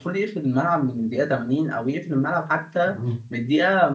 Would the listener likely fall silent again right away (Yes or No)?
Yes